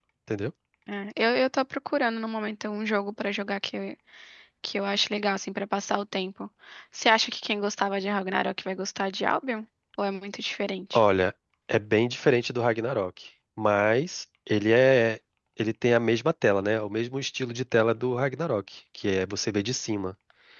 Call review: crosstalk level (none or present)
none